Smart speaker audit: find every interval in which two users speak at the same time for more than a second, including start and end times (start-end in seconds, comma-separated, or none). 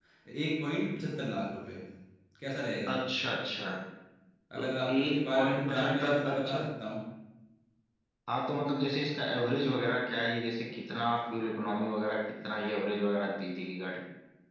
4.6-6.6